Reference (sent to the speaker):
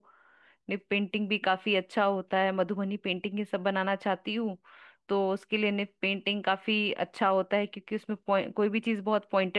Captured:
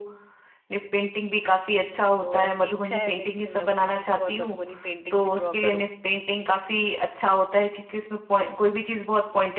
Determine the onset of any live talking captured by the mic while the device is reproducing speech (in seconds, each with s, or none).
2.2 s